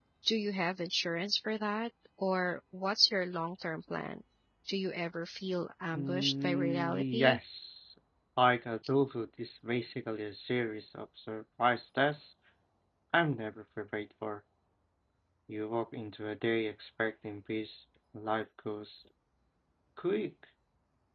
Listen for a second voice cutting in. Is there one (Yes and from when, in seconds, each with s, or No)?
Yes, from 6.0 s